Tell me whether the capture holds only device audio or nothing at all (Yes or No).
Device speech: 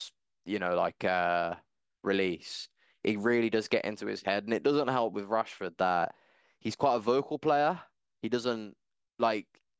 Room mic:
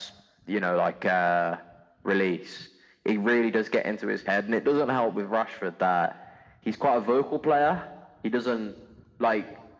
Yes